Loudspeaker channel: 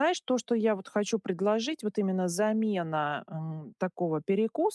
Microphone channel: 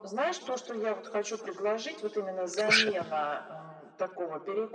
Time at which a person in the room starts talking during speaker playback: 2.6 s

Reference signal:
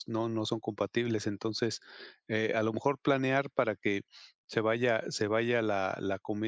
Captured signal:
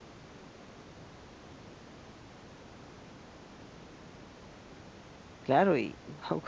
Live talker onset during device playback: 5.4 s

